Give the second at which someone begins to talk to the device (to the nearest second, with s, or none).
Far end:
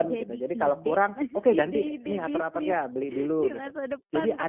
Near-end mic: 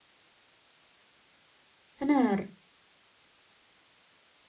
2 s